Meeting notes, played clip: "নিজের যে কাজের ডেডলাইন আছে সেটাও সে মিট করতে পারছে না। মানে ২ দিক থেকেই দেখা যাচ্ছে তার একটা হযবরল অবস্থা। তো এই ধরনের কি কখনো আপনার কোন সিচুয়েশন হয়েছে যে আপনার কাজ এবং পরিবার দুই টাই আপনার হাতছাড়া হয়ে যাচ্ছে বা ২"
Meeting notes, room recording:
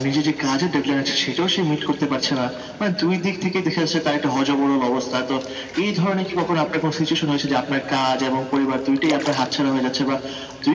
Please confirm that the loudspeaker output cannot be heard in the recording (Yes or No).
No